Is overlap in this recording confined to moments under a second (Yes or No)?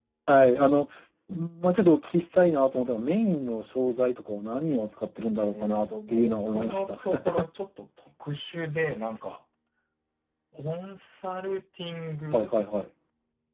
No